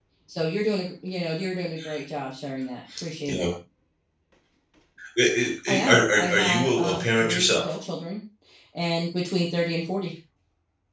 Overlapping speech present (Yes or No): Yes